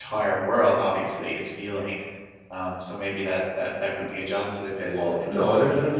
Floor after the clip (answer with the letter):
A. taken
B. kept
A